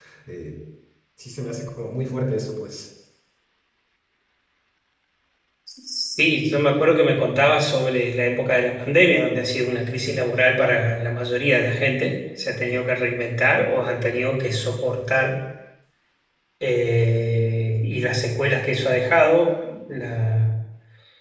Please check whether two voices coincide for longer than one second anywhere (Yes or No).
No